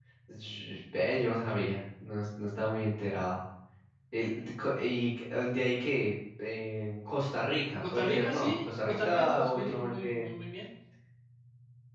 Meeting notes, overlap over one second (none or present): present